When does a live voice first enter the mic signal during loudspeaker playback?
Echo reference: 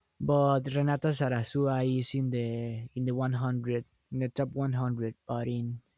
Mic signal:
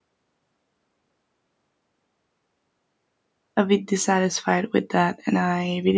3.6 s

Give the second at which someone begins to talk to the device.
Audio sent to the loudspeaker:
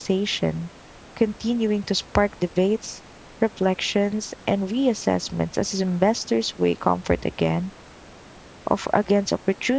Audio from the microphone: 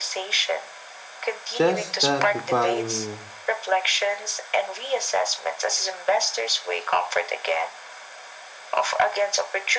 1.5 s

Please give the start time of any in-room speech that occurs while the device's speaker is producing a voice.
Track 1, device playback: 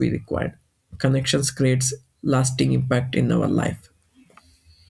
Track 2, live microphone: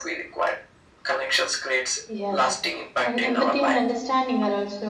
2.1 s

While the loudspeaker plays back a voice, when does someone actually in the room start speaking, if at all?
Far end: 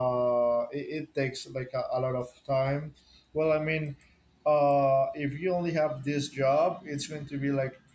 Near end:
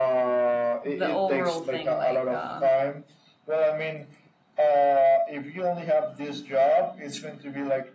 0.8 s

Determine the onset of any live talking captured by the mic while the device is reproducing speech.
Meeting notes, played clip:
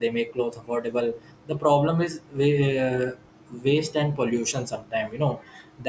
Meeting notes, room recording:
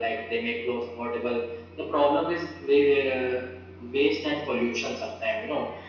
none

